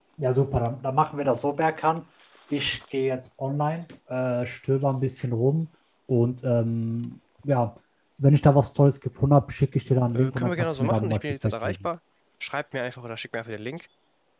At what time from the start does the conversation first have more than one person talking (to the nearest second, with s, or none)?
10 s